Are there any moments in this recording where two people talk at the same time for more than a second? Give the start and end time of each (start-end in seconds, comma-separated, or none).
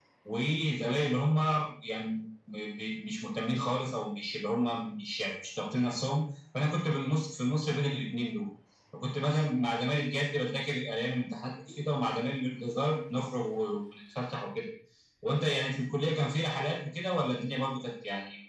none